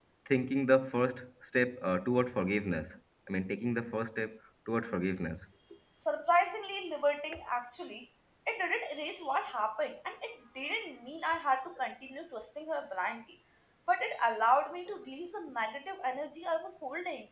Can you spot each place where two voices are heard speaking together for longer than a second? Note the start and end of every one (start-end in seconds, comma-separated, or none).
none